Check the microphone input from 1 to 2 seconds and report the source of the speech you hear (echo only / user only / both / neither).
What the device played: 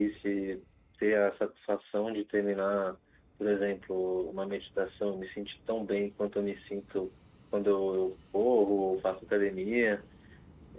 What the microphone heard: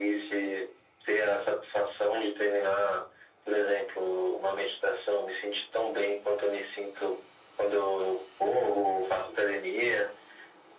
echo only